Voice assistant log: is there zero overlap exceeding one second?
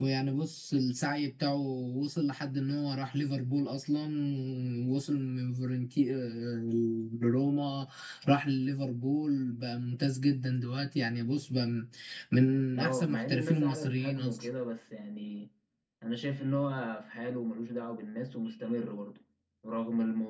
No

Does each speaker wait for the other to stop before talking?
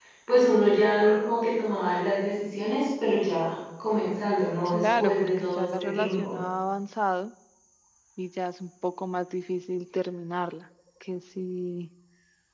No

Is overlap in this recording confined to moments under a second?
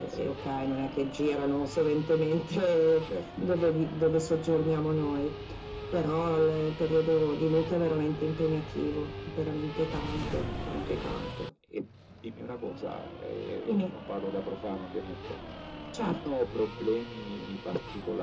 Yes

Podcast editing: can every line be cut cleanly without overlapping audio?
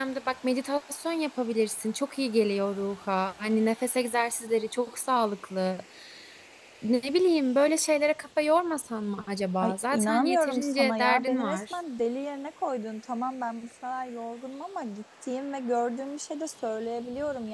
No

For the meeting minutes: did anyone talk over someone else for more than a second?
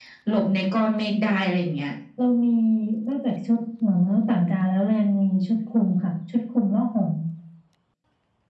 No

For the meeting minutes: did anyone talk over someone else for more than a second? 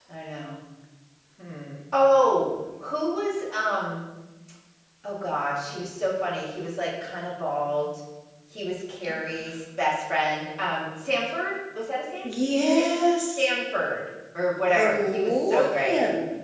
Yes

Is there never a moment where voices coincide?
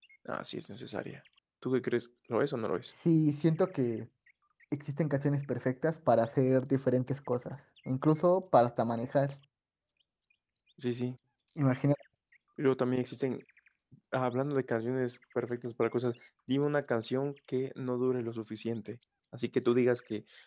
Yes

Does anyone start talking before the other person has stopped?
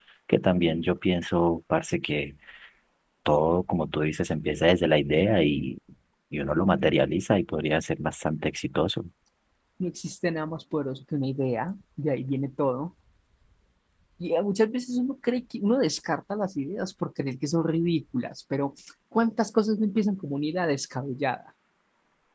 No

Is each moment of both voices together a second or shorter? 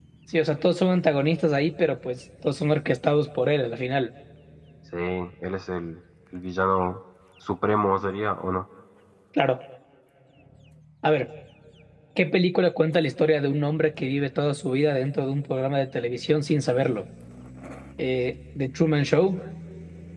Yes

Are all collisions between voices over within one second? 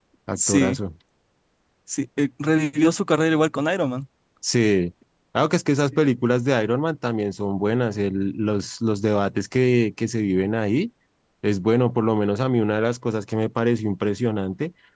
Yes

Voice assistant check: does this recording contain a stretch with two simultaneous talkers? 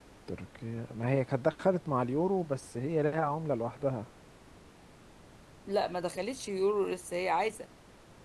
No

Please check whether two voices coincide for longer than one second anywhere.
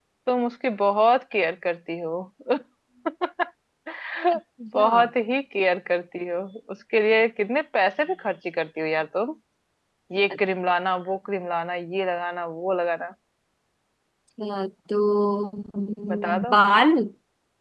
No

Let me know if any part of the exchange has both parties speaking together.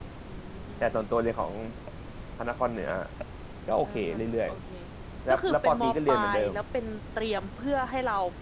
Yes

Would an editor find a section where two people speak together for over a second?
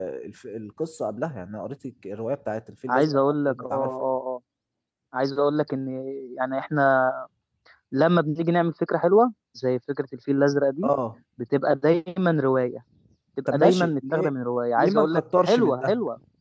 Yes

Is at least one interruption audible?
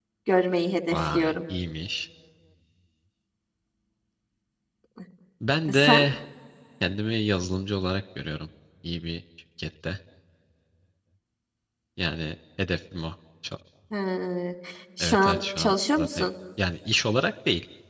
Yes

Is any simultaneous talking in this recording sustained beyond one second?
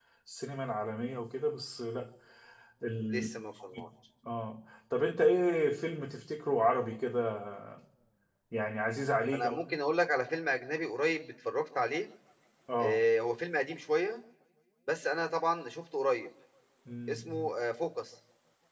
No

